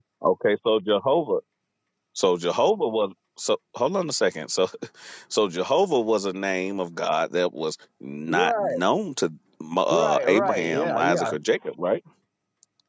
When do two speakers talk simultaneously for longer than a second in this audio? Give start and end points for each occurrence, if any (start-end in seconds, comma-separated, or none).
9.9-11.3